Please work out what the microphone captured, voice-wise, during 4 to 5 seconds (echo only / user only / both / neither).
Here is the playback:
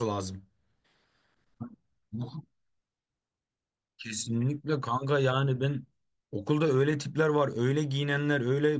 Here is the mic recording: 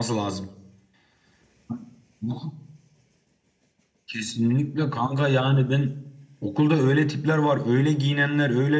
echo only